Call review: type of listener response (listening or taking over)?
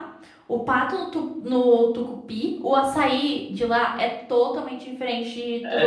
taking over